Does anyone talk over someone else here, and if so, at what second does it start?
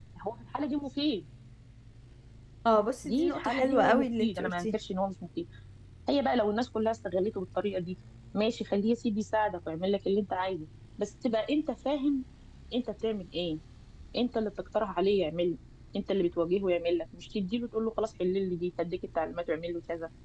3.0 s

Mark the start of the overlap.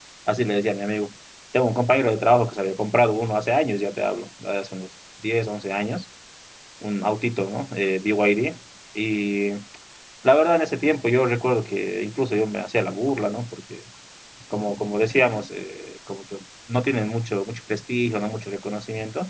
none

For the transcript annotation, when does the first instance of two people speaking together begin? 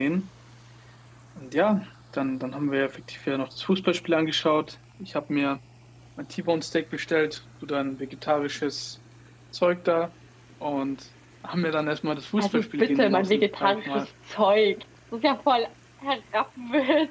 12.4 s

